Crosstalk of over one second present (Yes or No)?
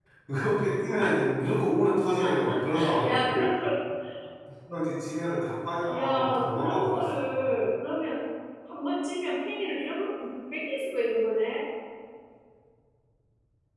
Yes